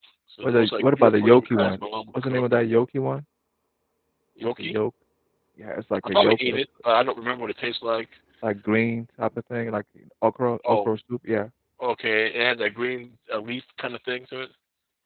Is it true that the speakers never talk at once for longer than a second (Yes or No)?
No